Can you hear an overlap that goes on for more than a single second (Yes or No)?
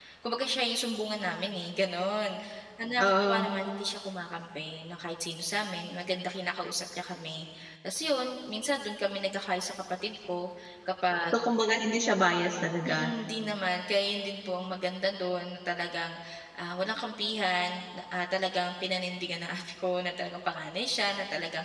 No